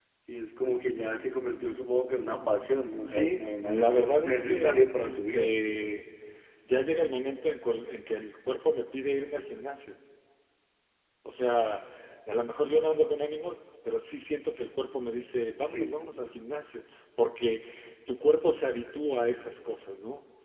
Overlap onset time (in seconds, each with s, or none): 3.1 s